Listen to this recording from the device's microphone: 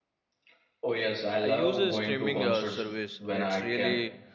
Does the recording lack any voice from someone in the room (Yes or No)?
No